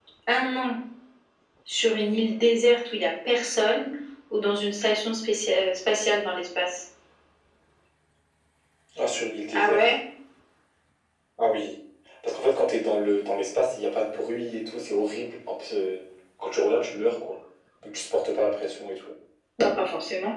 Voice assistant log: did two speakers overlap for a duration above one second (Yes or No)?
No